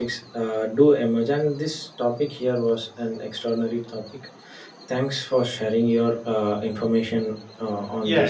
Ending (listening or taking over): taking over